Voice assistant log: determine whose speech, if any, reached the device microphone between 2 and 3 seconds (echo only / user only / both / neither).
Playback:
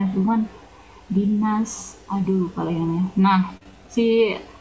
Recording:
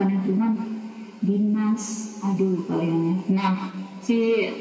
echo only